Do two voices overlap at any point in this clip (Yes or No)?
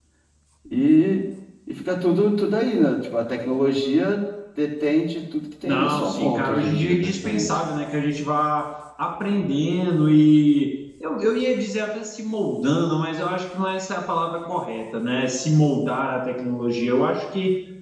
Yes